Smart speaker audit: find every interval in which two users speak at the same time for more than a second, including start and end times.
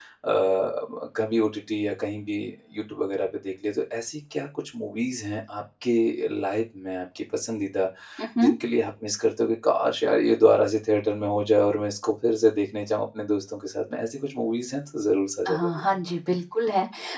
none

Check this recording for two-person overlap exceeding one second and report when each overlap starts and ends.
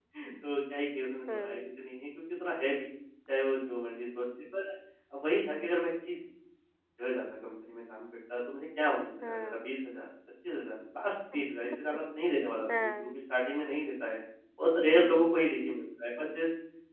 none

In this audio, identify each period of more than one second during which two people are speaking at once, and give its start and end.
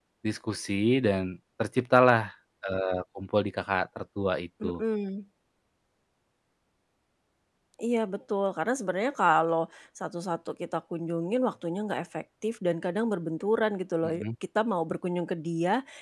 none

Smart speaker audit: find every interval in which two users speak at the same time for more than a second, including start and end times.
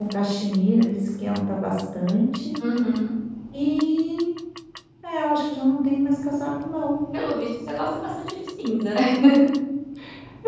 none

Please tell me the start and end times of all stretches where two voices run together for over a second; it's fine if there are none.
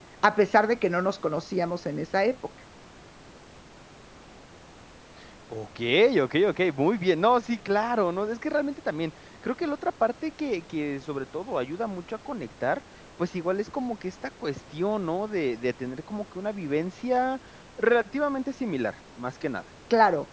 none

